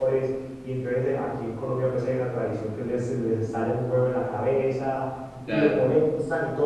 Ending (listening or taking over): listening